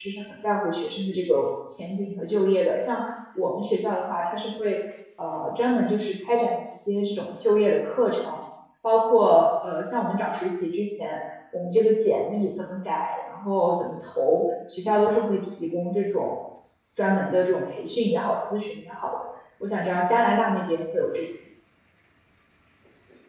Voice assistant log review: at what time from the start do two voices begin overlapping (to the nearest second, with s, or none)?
none